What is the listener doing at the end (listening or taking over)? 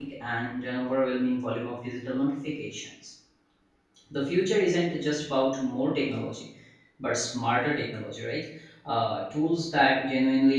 listening